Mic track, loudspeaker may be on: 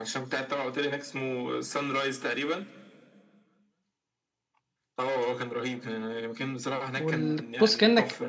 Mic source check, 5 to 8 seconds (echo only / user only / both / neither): both